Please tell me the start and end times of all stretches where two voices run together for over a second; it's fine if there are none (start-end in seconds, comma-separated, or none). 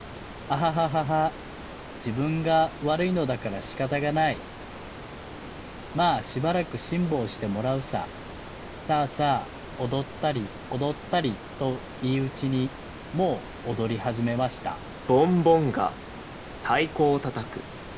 none